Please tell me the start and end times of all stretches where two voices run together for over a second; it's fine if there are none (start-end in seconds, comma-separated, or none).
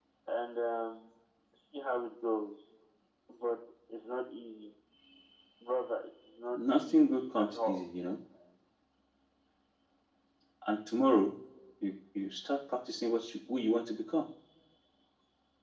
6.6-7.8